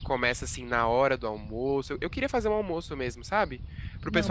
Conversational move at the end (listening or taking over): listening